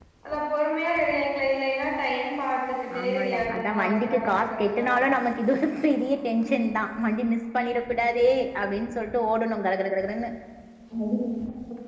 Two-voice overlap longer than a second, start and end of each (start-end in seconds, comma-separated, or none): 3.0-4.8